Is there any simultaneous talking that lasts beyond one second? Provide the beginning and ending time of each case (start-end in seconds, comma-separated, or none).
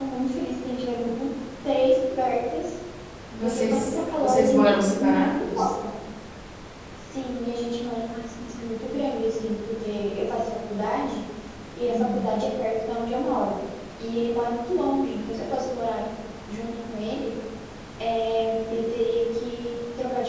3.4-5.6